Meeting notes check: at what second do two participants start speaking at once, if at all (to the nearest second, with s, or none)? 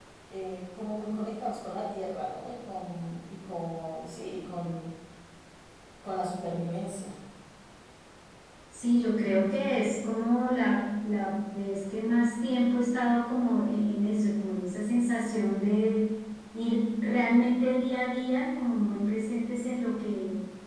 none